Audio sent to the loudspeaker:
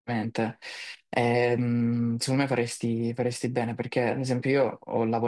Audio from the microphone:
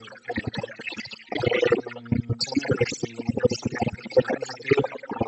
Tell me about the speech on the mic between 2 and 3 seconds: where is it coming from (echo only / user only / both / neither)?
echo only